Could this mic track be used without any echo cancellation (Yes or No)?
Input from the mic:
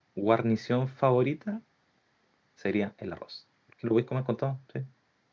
Yes